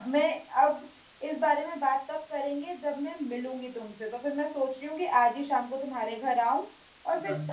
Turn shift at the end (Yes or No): No